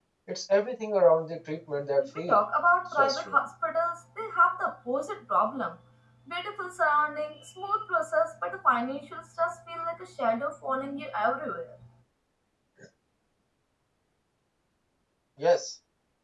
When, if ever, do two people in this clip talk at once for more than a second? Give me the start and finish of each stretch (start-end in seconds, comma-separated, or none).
none